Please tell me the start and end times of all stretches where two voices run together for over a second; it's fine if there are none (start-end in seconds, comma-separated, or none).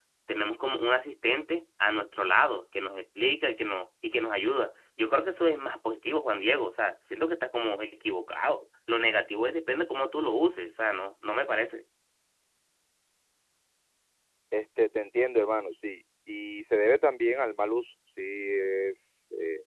none